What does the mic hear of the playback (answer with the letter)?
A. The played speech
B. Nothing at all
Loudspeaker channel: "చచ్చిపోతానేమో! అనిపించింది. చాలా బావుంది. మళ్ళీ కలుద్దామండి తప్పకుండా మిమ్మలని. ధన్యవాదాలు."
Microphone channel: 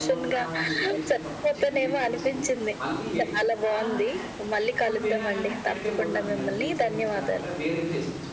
A